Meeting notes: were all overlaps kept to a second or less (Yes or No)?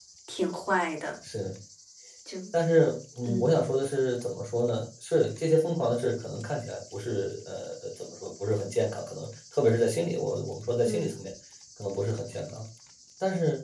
Yes